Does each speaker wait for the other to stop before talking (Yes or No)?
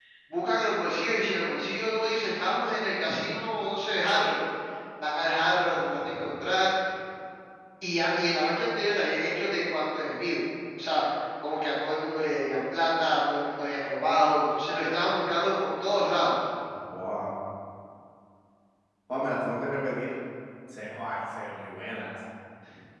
Yes